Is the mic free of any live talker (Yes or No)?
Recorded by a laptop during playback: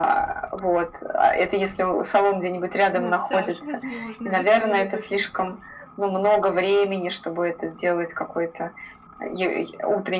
No